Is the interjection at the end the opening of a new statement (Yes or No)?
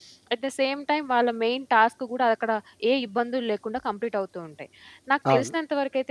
No